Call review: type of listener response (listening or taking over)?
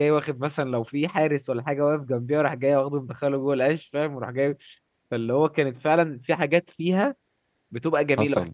listening